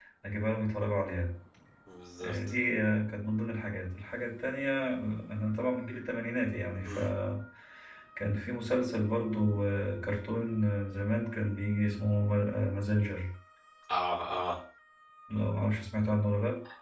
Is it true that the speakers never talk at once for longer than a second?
Yes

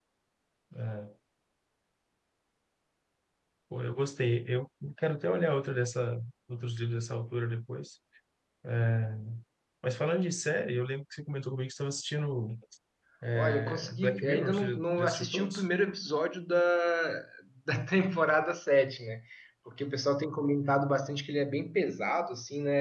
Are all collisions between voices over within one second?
No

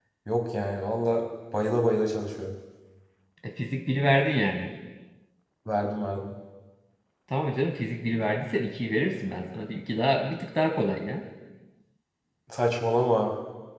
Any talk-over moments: No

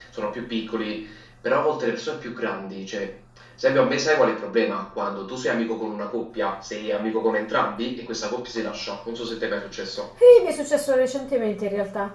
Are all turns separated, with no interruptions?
Yes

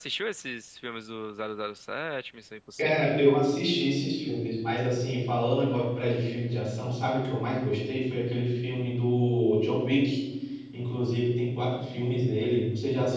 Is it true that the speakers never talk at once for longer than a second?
Yes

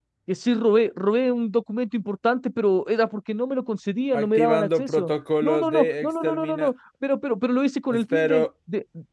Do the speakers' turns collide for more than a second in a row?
Yes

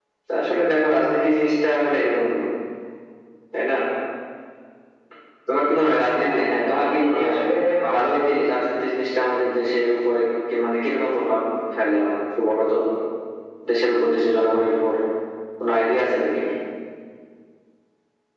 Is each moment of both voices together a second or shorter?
No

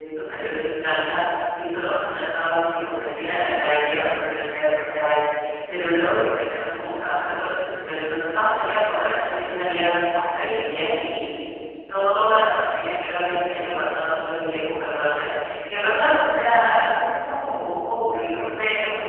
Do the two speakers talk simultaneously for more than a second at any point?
No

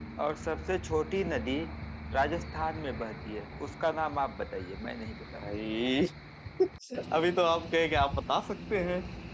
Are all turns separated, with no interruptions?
Yes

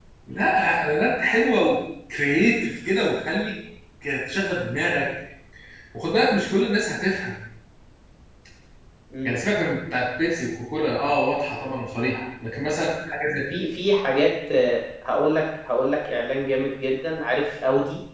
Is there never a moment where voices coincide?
Yes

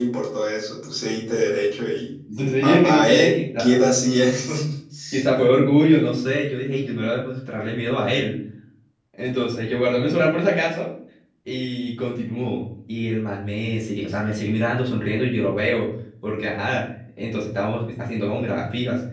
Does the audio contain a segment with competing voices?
Yes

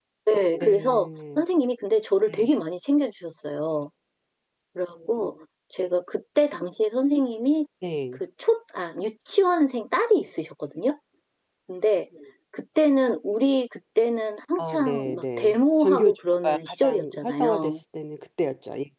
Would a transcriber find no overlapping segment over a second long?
No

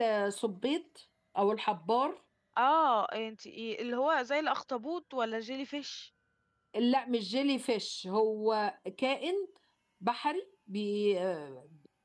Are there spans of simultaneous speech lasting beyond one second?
No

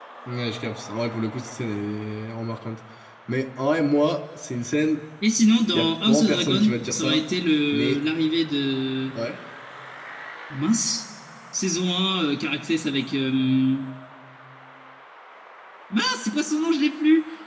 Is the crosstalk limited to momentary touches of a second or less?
No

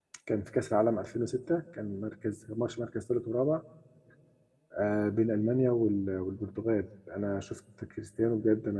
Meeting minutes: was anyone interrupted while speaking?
No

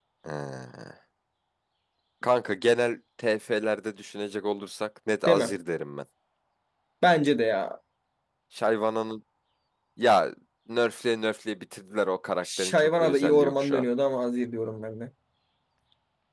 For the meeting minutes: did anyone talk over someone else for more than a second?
Yes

